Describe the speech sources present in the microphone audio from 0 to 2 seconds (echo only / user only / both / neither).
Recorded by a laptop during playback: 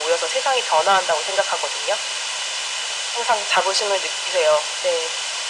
echo only